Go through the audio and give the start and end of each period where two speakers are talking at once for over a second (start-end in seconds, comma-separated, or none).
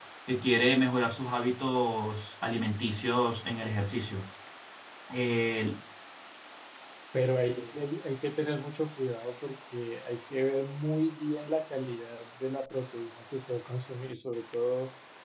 none